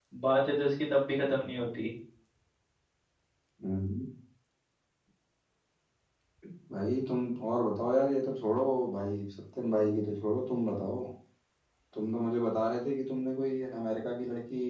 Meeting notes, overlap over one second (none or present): none